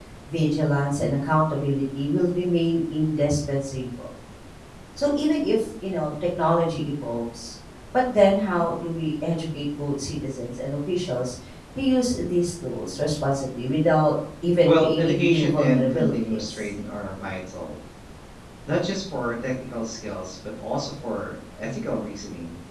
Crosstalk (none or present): present